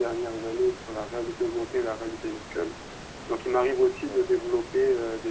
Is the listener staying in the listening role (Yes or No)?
Yes